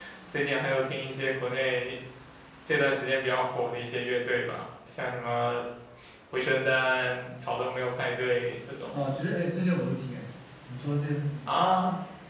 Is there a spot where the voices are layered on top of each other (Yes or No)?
No